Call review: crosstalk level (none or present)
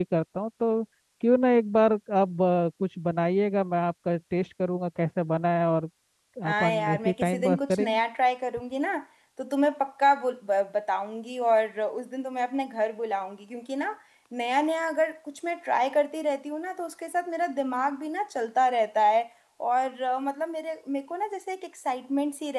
present